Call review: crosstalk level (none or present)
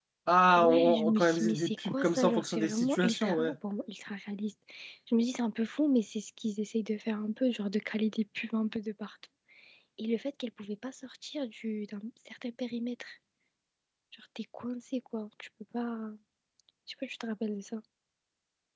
present